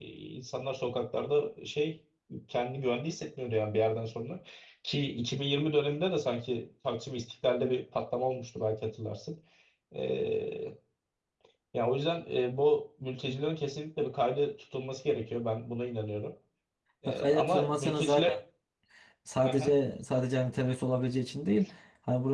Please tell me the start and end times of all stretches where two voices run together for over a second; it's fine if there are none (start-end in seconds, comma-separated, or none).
17.1-18.4